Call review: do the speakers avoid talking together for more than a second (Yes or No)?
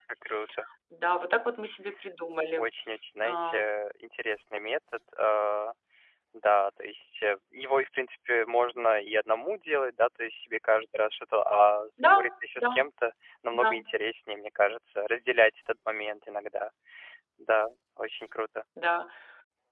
Yes